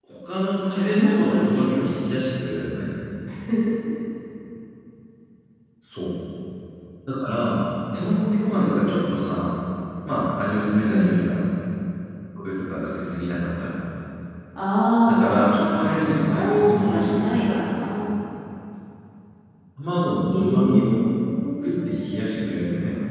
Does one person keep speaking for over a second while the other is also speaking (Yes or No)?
Yes